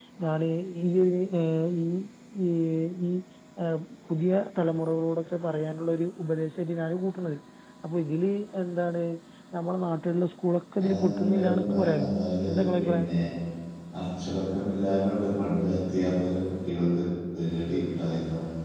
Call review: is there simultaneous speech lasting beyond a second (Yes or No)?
Yes